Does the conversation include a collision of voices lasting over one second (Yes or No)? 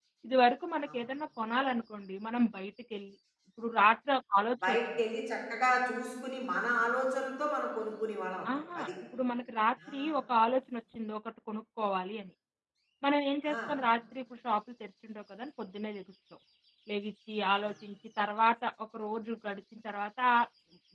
No